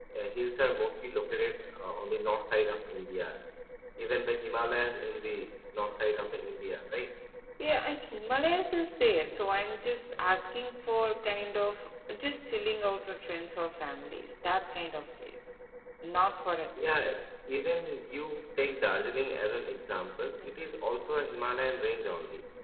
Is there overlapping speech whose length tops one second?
No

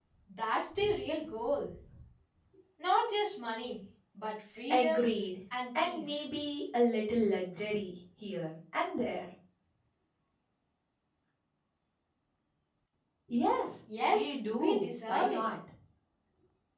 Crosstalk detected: Yes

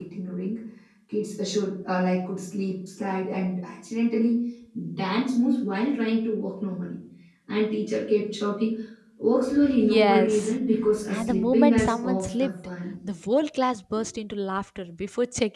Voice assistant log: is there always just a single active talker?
No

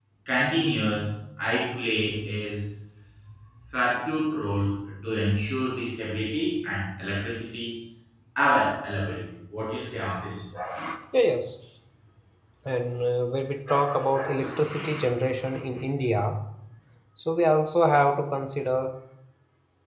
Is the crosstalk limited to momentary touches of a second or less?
Yes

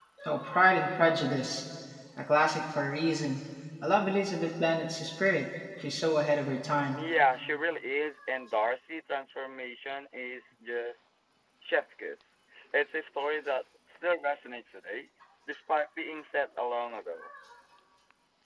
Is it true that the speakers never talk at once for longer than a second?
Yes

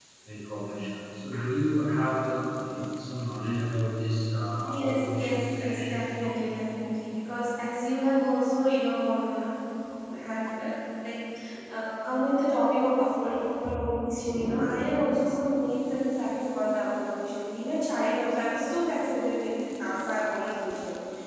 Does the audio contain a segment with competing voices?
Yes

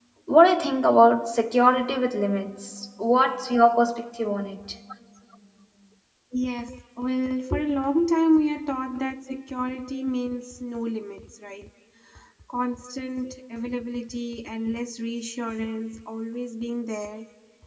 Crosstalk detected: No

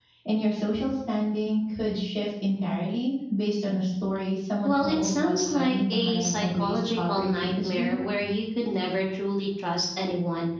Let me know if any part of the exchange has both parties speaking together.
Yes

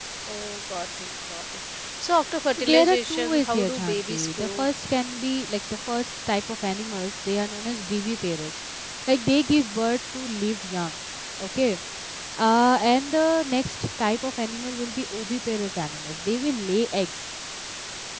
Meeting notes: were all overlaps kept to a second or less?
No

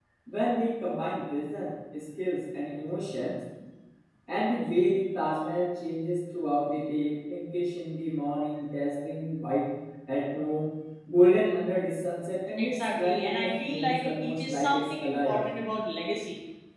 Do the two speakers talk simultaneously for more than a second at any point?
Yes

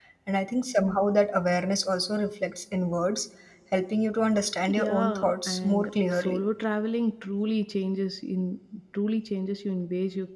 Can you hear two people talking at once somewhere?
Yes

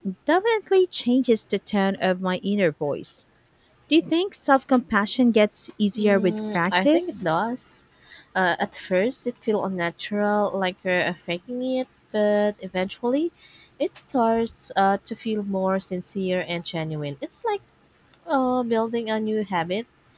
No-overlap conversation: No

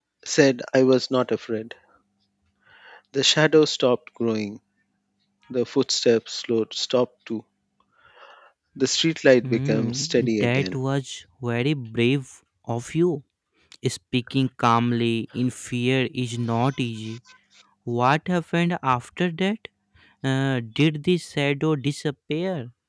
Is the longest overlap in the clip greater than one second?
Yes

